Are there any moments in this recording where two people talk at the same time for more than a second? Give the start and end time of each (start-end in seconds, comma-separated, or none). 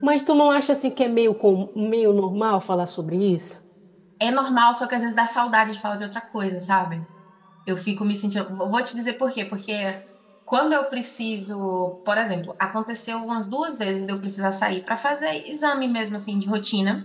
none